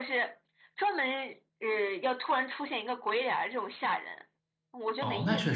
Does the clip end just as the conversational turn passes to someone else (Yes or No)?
Yes